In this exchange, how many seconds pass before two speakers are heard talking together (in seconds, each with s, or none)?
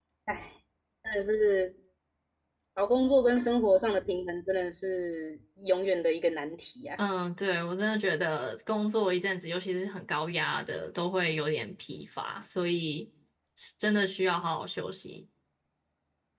none